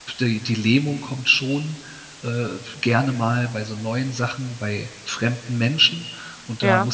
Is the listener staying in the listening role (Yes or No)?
Yes